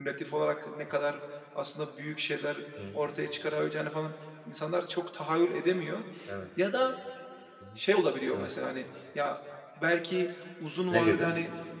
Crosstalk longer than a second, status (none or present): none